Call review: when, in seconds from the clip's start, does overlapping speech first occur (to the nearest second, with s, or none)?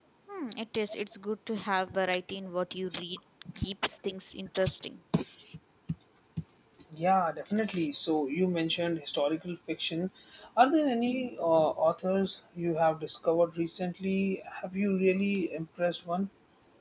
none